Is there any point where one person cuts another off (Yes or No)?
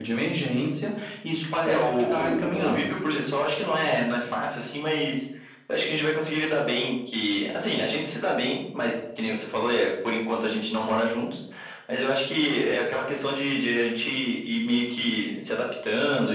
Yes